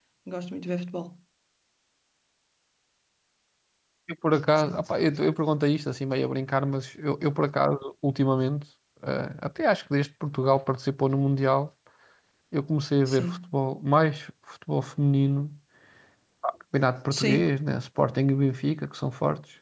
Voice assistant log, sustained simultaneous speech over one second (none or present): none